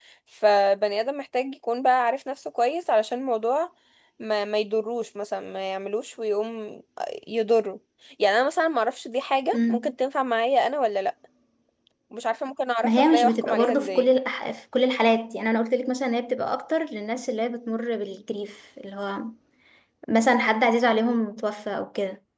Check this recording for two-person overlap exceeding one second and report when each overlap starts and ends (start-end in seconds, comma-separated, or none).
12.8-14.1